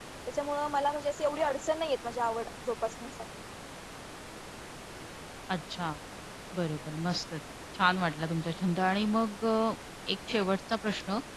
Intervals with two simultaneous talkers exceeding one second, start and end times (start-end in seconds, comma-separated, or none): none